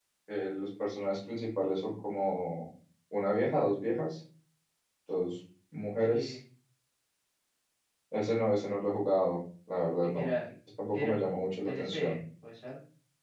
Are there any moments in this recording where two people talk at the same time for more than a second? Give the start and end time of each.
10.9-12.2

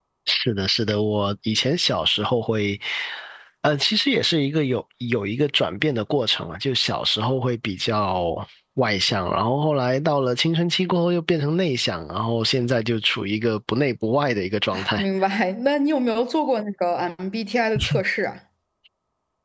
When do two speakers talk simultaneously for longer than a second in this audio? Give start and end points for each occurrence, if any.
none

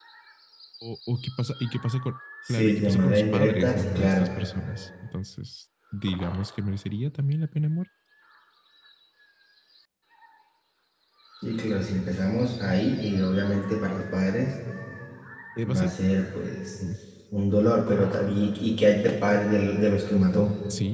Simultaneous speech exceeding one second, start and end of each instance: 2.5-4.3

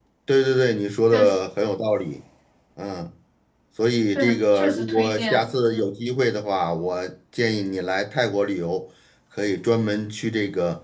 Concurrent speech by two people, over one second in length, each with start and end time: 4.2-5.4

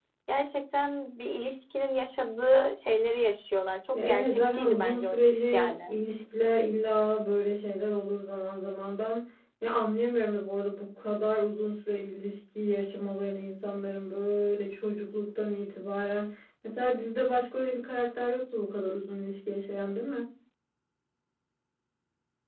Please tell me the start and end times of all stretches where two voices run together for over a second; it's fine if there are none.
3.9-5.9

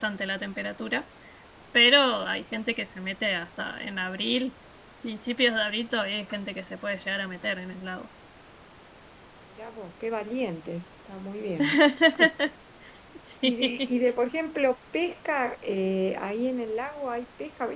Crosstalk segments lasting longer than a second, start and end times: none

